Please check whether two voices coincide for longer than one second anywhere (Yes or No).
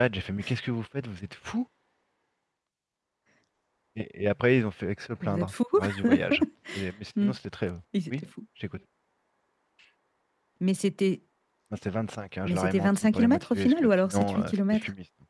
Yes